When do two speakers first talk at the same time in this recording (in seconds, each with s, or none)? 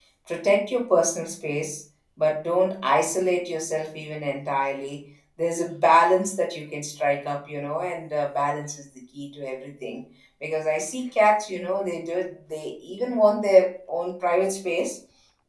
none